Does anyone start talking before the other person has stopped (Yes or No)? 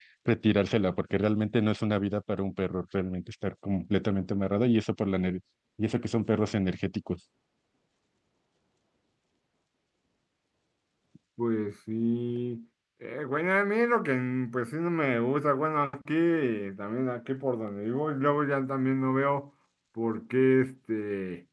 No